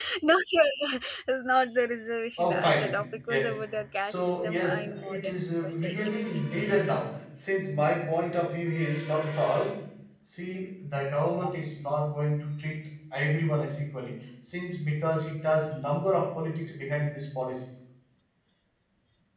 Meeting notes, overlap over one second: present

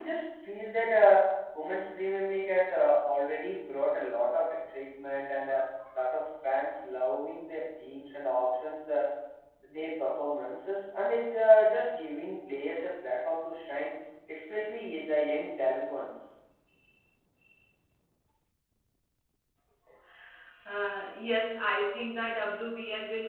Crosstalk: none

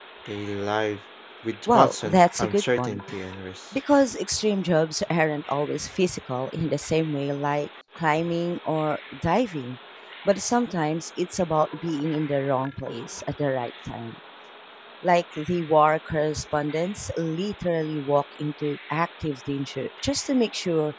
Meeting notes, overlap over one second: present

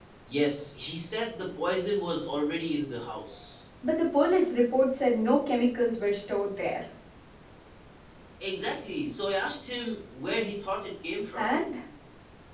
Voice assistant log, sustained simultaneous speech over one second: none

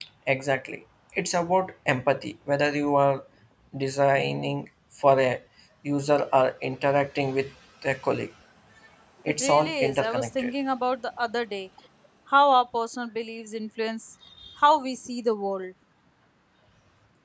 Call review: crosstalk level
present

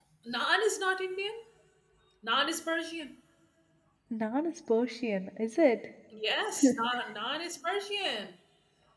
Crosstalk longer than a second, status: none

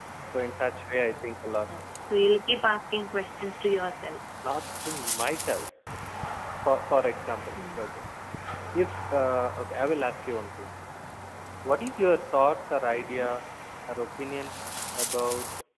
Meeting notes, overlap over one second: none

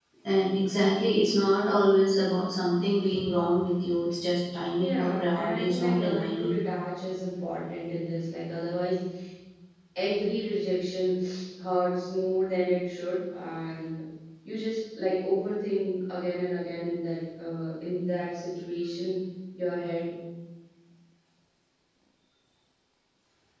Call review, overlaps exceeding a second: present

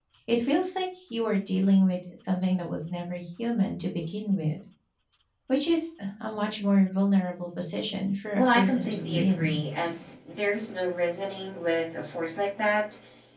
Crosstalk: present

